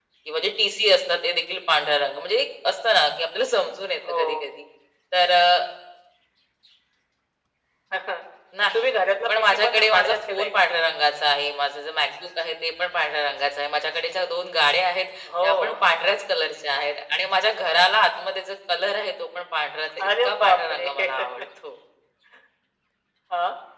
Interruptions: present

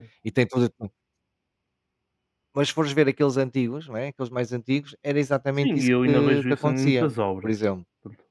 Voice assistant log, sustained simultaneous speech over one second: present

